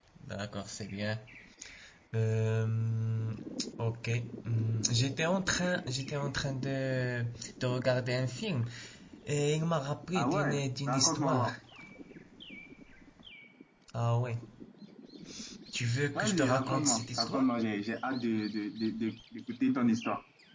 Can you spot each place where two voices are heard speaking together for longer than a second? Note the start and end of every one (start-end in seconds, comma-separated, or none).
10.2-11.5, 16.1-17.5